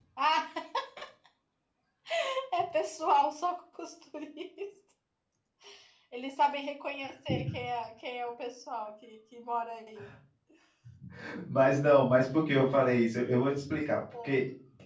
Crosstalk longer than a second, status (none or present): none